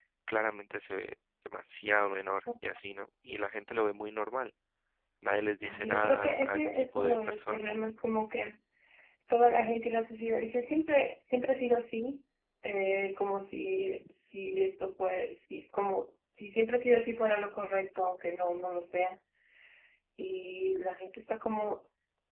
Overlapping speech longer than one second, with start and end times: 5.6-7.6

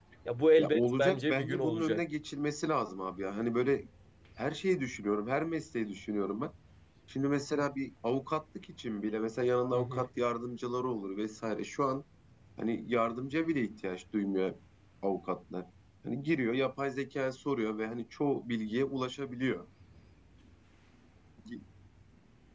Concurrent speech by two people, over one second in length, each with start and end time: 0.6-2.0

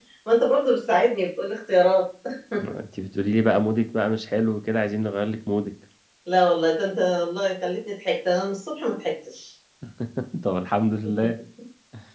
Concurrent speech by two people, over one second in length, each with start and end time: none

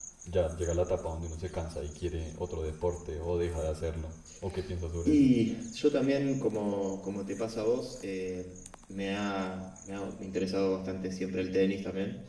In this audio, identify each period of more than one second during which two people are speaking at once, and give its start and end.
none

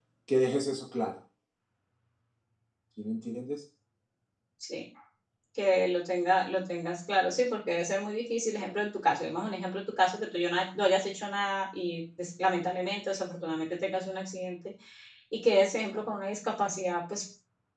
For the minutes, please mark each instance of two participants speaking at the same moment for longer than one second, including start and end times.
none

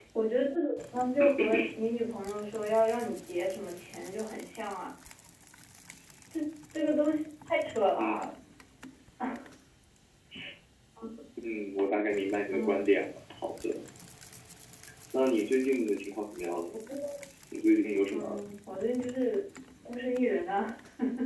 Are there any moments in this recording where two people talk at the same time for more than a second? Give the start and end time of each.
none

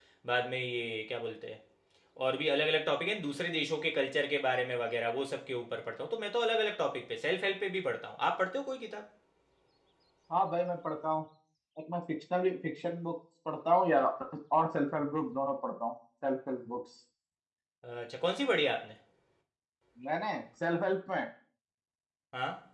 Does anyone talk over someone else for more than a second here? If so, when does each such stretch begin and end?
none

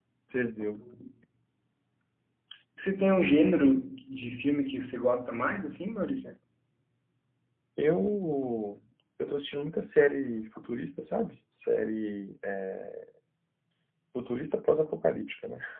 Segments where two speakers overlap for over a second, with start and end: none

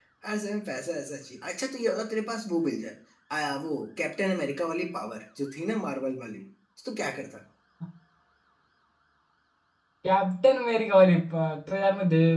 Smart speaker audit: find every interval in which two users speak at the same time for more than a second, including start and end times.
none

